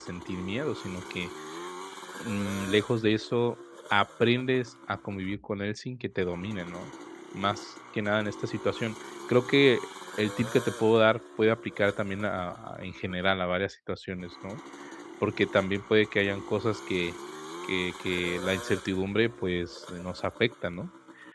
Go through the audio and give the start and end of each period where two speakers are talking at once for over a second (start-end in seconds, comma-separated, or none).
none